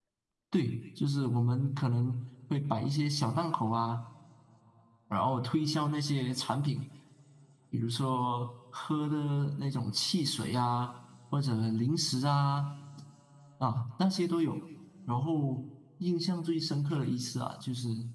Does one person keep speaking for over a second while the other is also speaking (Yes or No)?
No